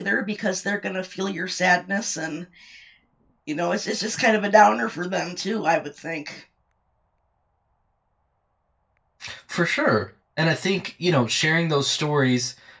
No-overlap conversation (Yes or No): Yes